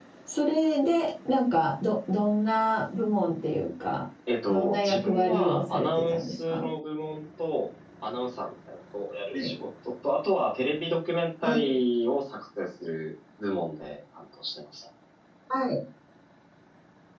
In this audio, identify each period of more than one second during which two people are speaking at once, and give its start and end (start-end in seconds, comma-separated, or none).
4.5-6.7